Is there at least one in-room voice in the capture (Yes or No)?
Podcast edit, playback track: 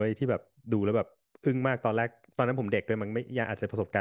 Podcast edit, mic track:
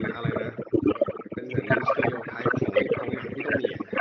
Yes